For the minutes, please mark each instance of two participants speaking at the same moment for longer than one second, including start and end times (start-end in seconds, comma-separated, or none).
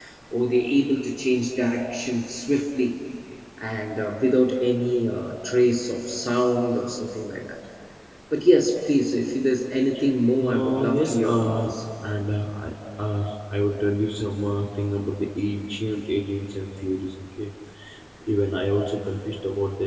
10.4-11.7